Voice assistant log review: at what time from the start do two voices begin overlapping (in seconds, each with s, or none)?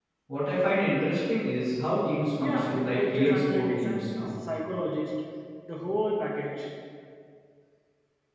2.4 s